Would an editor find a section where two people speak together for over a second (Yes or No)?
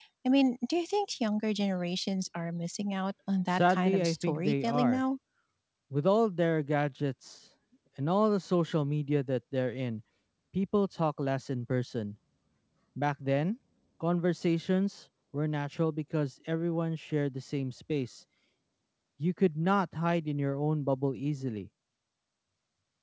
Yes